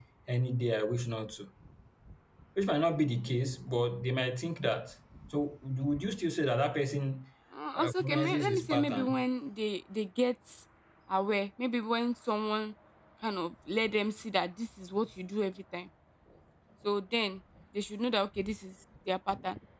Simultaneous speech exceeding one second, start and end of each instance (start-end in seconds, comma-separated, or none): 7.8-9.2